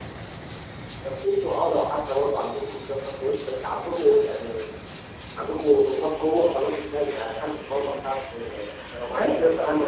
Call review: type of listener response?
taking over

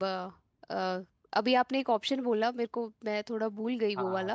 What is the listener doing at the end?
taking over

